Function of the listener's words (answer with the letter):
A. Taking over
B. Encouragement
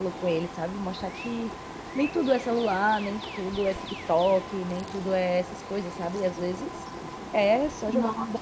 B